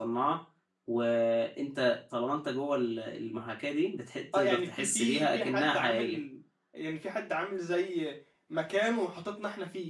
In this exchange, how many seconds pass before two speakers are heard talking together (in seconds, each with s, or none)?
4.3 s